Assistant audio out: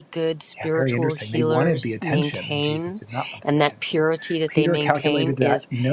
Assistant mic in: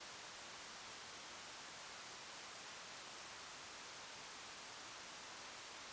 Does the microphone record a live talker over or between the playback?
No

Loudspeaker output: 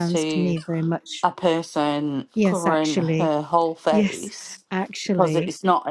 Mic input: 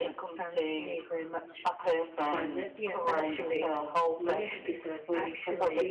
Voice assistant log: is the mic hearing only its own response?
No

